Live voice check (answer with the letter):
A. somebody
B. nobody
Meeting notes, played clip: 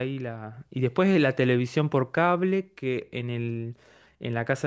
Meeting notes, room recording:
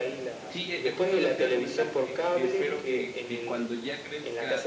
A